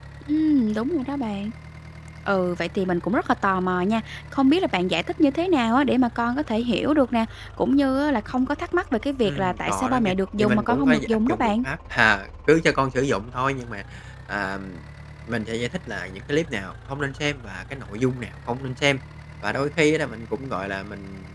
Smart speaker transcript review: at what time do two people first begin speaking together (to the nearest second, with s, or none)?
9 s